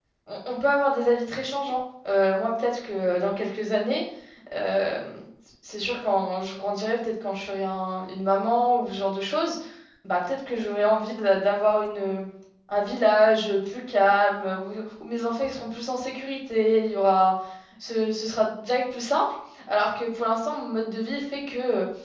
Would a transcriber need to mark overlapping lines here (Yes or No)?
No